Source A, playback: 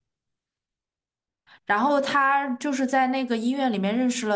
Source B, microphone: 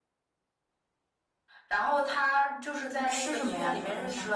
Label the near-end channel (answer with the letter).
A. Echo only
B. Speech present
B